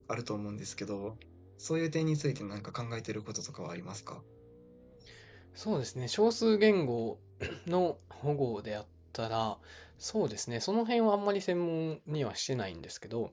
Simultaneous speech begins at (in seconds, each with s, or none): none